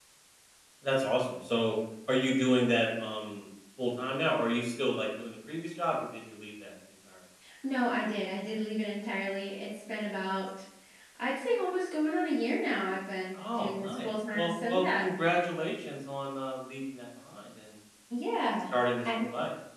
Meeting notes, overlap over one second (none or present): present